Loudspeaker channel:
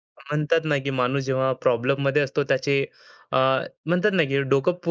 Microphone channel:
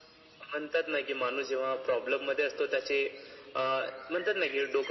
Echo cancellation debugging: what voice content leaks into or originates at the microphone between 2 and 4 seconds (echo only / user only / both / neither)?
echo only